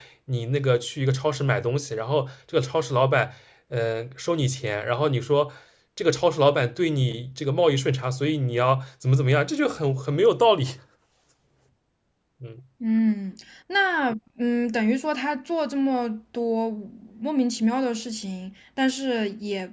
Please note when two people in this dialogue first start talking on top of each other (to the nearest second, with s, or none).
none